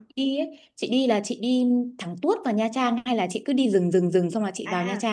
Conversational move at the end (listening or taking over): taking over